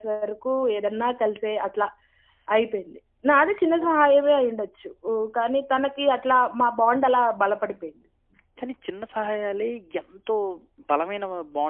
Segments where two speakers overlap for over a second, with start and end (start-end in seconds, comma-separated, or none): none